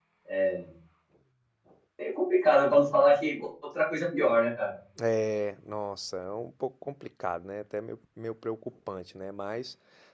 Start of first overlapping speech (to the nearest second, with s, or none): none